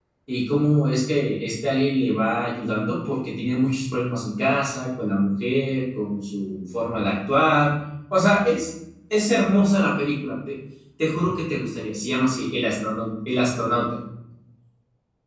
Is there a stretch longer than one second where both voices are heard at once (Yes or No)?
No